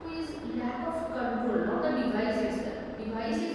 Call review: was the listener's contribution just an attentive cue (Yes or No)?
Yes